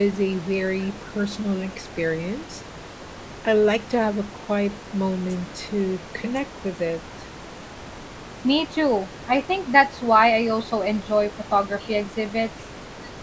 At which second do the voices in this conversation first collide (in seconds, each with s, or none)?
none